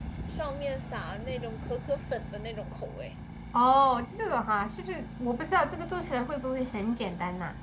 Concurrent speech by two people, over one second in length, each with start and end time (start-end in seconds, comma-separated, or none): none